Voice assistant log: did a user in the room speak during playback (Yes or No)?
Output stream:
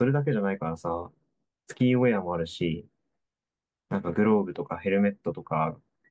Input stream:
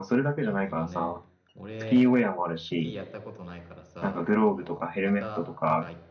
Yes